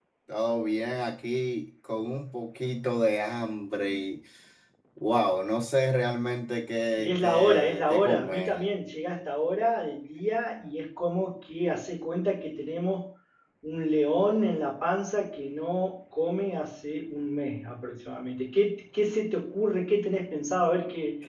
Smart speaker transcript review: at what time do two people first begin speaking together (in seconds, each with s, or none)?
6.9 s